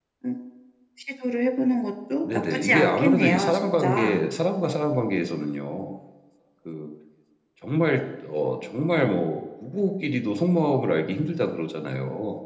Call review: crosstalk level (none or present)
present